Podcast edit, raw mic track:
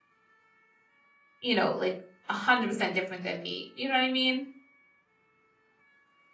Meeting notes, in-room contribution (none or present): present